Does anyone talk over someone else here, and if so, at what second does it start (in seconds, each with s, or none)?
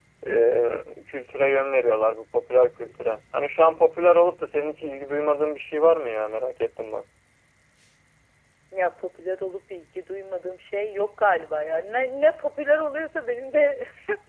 none